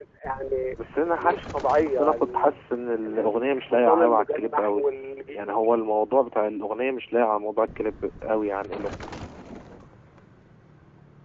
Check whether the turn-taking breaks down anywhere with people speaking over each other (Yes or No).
Yes